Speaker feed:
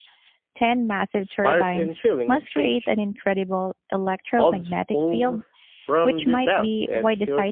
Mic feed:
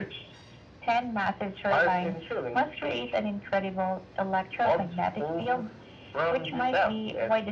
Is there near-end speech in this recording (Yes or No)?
No